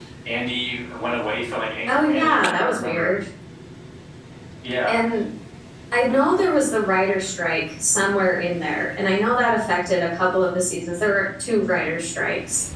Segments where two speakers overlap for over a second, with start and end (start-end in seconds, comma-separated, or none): 1.9-3.1